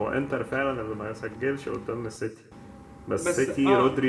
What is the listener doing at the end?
listening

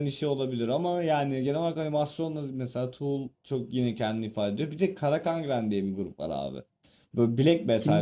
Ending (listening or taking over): listening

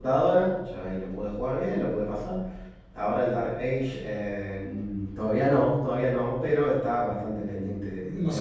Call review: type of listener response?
taking over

